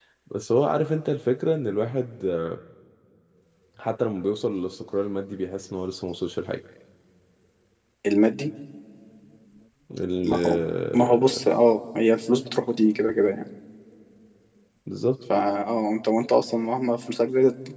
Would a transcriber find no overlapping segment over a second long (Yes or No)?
Yes